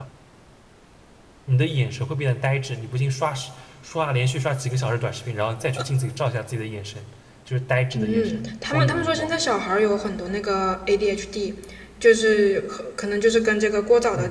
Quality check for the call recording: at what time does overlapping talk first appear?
8 s

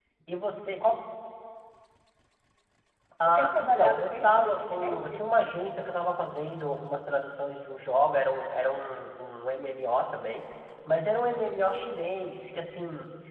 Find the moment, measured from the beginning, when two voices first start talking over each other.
3 s

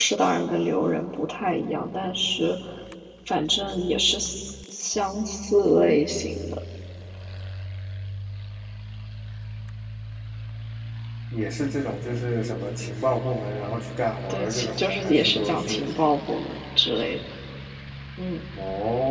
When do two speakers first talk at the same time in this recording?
14 s

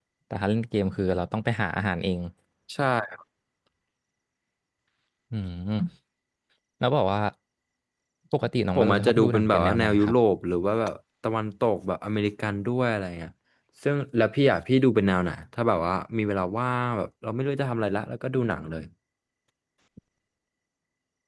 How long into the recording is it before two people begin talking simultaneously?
9 s

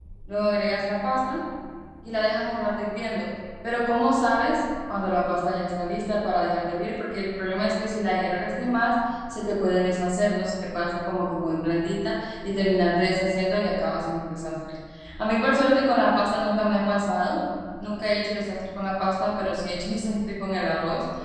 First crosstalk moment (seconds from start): none

